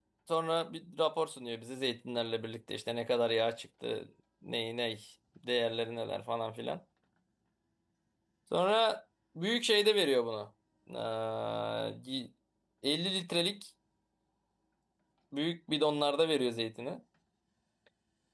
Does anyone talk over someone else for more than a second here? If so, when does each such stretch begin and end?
none

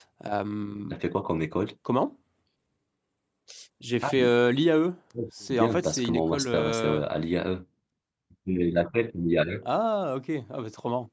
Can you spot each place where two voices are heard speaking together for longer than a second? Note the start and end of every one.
5.5-7.0

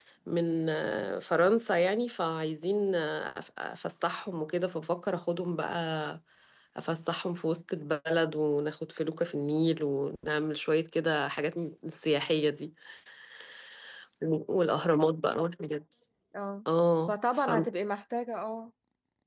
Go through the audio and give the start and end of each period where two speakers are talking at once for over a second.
none

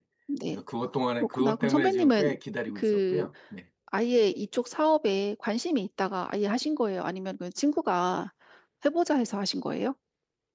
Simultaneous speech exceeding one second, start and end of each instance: 1.1-2.4

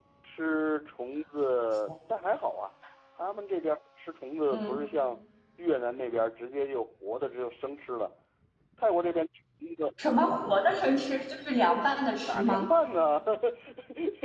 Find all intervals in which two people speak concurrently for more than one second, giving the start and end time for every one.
none

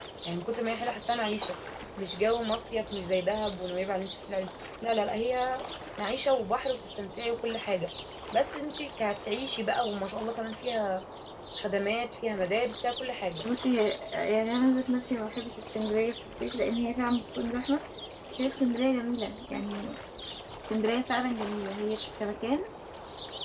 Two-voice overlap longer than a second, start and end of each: none

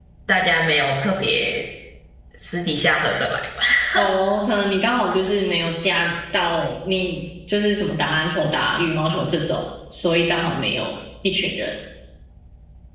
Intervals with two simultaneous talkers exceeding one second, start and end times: none

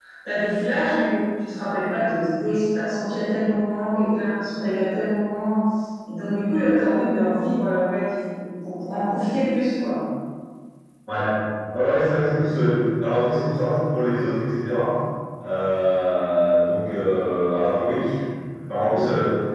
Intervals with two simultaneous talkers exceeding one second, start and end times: none

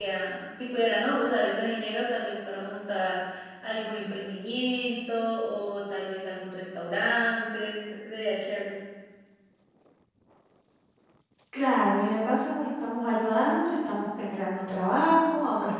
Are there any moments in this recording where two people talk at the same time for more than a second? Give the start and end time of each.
none

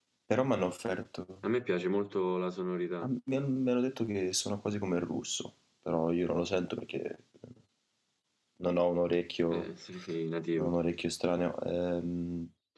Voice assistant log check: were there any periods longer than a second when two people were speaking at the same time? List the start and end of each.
none

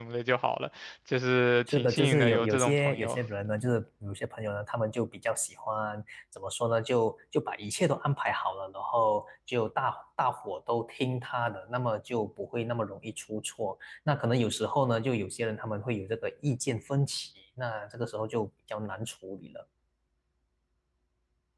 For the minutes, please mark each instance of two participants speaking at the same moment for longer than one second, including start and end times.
1.7-3.2

